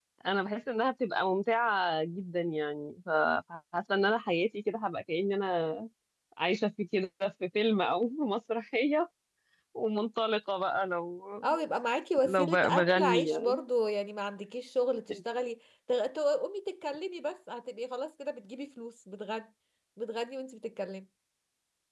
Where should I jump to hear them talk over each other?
12.2 s

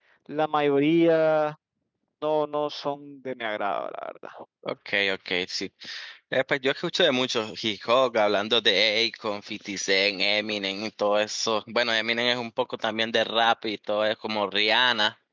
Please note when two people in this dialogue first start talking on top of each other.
none

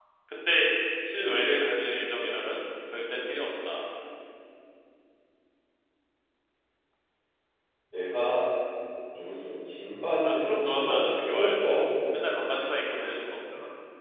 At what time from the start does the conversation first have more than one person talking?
10.2 s

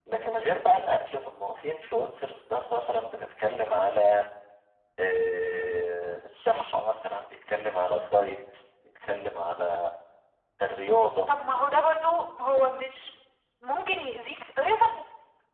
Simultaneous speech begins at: none

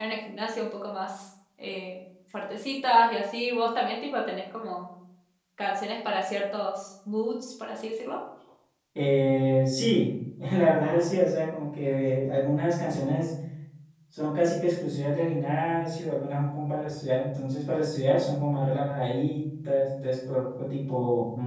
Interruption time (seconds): none

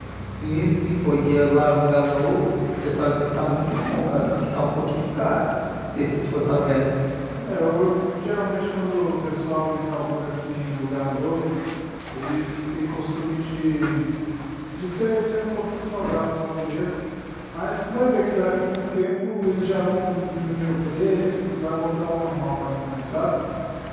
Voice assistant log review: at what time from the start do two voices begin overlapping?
none

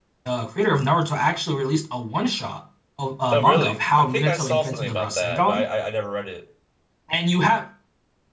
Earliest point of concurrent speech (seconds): 3.3 s

